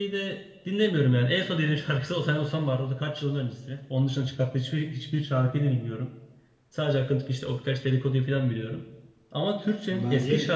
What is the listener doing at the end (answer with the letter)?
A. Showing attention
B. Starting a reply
A